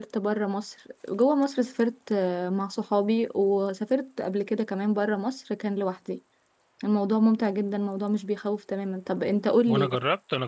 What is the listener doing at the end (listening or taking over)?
taking over